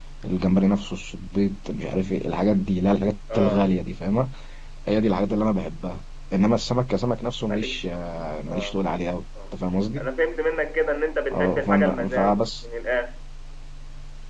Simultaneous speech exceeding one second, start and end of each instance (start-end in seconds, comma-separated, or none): 11.3-12.6